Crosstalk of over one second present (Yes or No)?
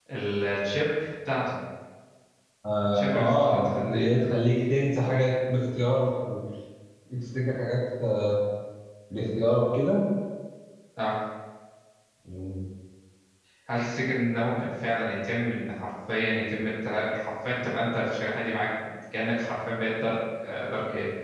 Yes